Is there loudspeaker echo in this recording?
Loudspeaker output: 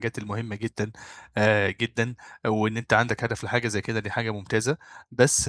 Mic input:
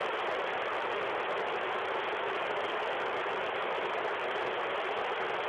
No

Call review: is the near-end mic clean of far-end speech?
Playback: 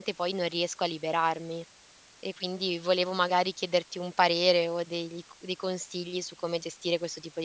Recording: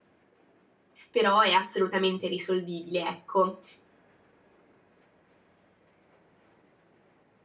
Yes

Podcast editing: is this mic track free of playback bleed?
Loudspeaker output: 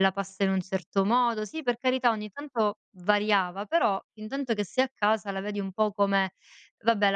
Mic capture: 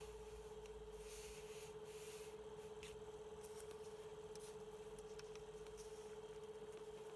Yes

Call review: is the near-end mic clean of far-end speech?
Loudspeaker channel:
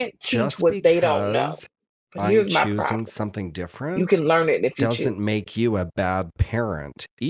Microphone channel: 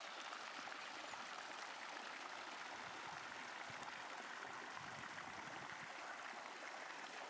Yes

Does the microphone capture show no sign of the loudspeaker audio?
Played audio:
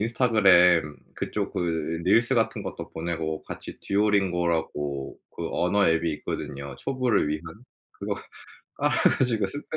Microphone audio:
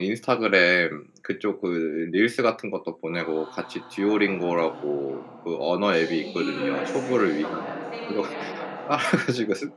No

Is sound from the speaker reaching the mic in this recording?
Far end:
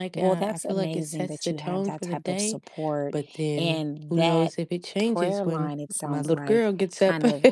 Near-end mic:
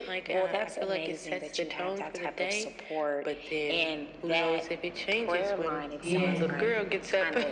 Yes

